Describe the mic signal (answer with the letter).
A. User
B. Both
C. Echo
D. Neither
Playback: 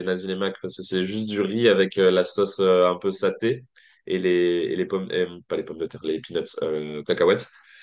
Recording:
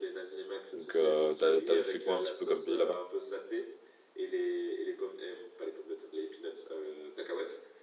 B